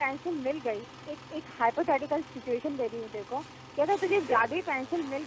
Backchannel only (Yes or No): Yes